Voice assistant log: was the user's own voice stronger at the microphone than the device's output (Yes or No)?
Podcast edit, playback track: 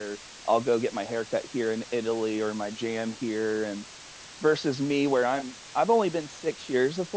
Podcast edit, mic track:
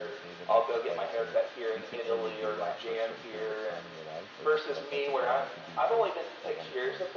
No